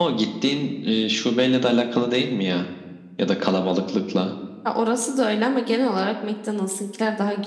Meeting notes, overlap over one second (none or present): none